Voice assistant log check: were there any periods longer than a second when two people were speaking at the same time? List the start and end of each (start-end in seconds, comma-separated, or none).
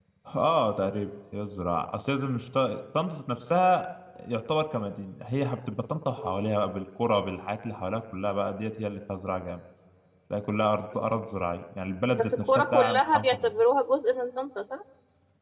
12.1-13.5